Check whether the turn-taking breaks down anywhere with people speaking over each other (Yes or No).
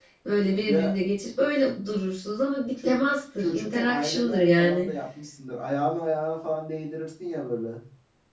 Yes